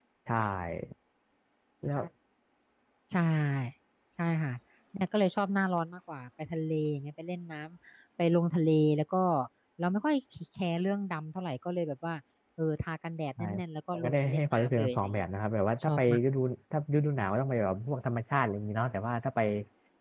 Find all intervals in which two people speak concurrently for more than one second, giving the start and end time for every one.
13.9-15.2

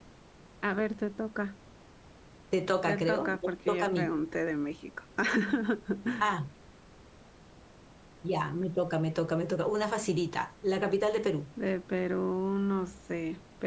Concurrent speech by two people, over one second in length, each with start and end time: 2.9-4.1

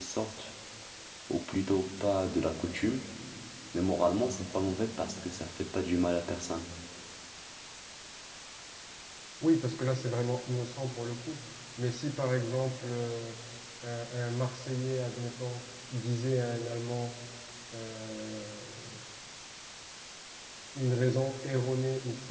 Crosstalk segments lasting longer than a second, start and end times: none

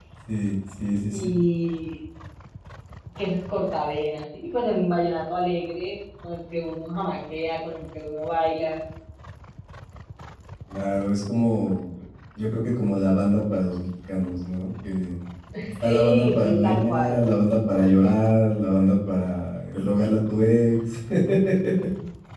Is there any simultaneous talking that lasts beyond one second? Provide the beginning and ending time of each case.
15.8-17.2

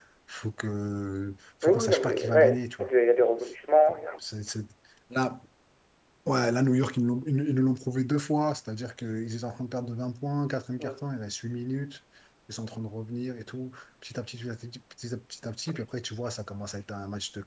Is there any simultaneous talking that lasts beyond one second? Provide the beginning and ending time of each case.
1.6-2.9

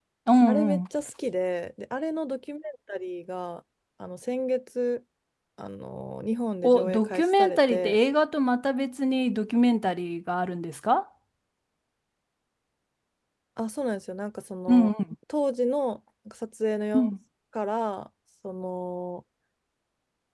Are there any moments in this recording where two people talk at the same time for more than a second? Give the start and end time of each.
6.6-8.0

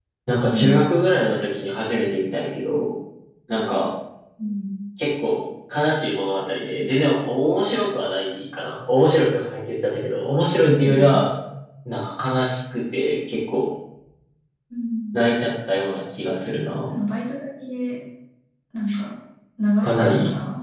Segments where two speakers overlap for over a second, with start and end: none

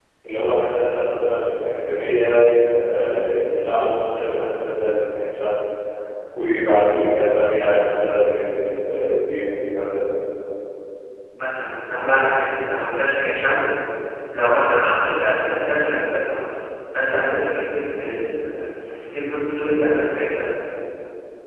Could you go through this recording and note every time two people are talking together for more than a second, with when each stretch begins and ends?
none

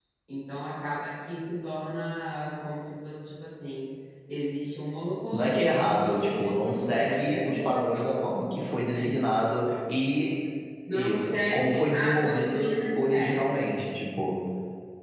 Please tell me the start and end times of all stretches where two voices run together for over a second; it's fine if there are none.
5.3-8.1, 10.9-13.5

